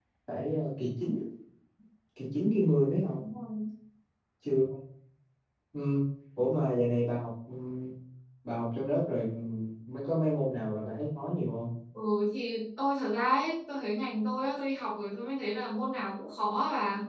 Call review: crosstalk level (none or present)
none